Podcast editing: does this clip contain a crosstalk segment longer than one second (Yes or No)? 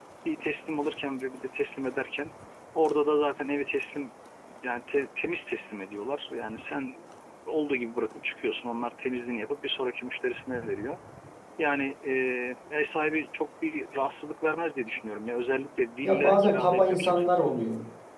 Yes